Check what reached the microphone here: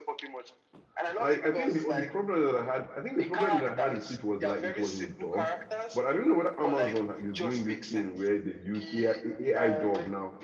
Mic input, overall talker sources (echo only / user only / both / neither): both